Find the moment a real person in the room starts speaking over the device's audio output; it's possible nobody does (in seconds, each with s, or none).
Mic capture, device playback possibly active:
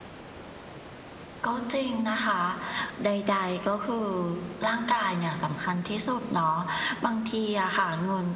none